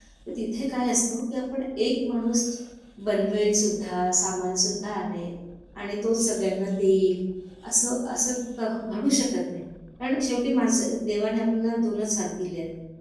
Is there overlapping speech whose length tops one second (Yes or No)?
No